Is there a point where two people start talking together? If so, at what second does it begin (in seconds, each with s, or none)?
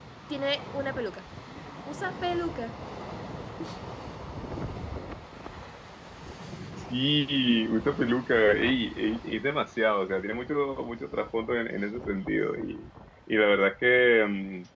none